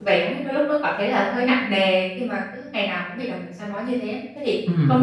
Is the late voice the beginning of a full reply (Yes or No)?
No